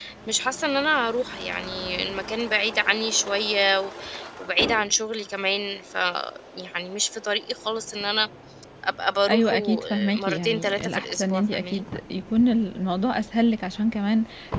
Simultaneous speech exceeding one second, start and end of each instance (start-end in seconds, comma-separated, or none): 9.3-11.8